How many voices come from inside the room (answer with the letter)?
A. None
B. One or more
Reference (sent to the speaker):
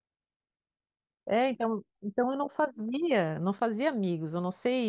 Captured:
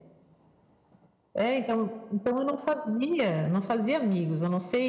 A